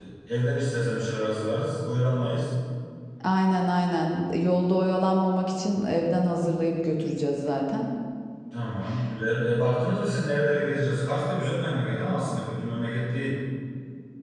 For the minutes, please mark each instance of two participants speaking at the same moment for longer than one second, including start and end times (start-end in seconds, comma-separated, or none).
none